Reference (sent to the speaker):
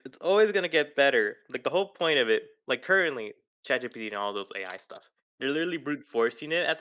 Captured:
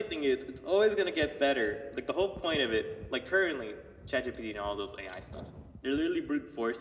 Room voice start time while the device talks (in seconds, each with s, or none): none